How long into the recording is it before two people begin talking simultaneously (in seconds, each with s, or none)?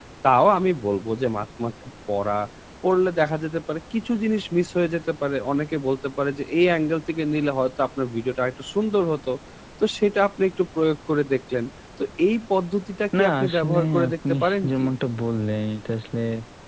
13.1 s